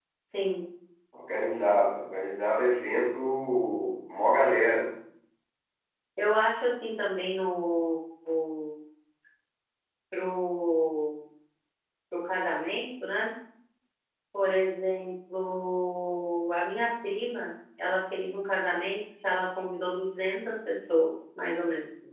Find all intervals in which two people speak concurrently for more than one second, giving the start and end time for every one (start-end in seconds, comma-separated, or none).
none